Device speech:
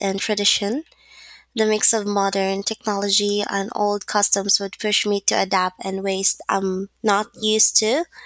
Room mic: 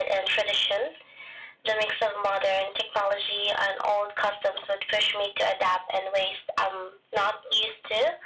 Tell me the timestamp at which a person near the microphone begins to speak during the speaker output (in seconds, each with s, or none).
none